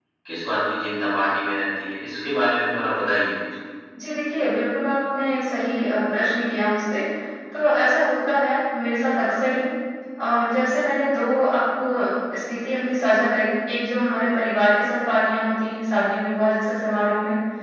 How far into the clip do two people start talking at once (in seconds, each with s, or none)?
none